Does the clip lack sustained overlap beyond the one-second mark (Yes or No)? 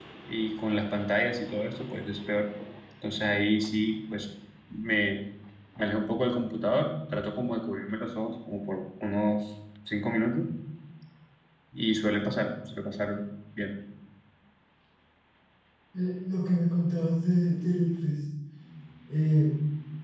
Yes